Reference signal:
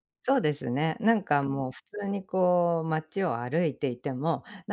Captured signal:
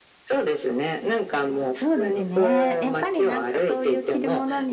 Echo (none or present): present